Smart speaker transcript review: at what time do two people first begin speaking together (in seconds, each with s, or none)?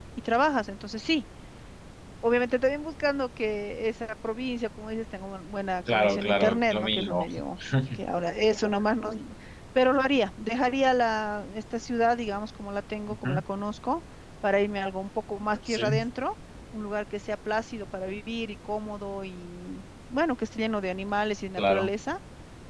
5.9 s